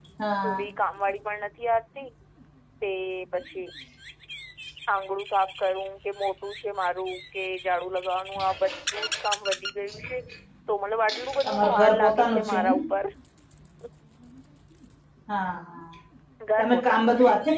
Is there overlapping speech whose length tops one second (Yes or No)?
Yes